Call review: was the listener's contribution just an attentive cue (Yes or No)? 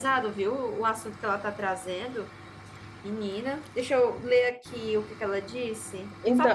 No